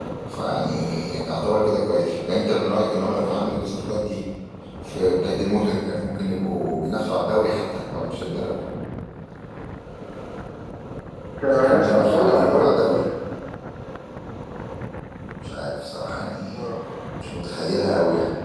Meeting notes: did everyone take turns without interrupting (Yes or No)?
No